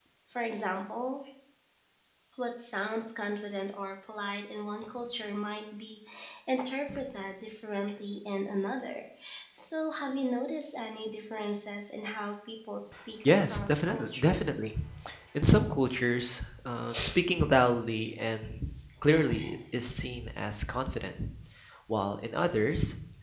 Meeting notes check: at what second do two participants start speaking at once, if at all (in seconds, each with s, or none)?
13.2 s